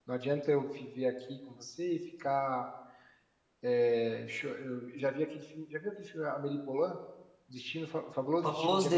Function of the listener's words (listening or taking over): taking over